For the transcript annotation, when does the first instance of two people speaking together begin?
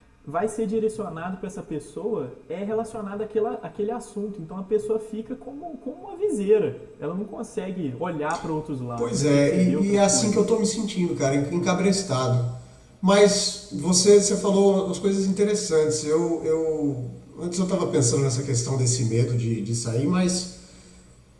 9.0 s

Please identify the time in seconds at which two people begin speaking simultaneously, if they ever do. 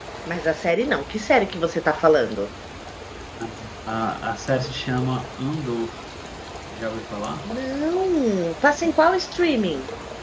none

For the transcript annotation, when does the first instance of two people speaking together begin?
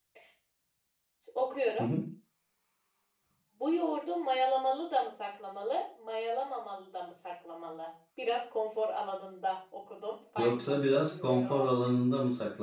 10.4 s

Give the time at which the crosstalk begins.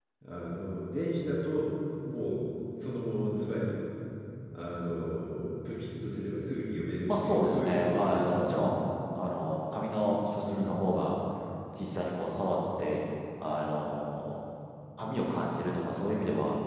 7.1 s

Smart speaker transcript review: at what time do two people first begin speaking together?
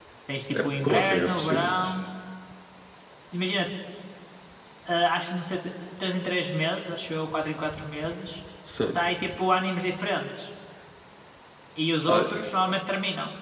0.5 s

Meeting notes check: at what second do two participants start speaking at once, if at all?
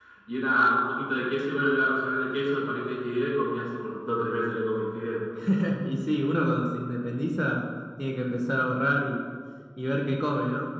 none

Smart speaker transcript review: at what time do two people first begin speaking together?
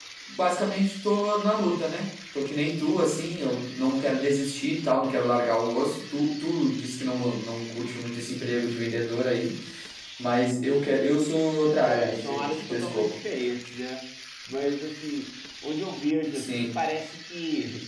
11.8 s

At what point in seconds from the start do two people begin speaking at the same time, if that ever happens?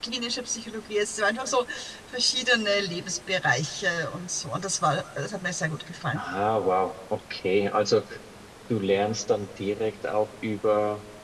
none

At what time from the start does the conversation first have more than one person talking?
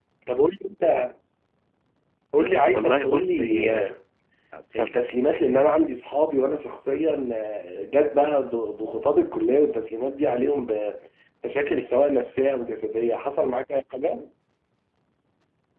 2.7 s

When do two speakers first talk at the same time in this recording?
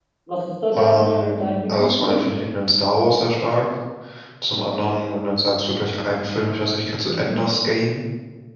0.7 s

